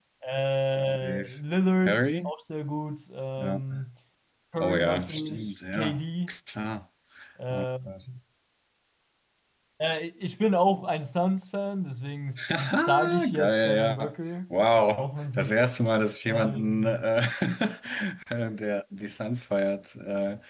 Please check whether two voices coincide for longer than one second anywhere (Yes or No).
Yes